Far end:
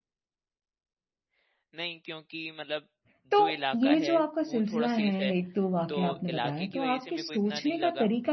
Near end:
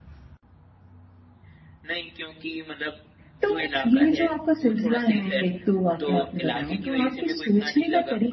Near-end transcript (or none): none